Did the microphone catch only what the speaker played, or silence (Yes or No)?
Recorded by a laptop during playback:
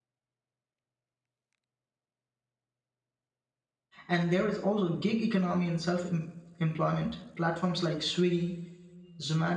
No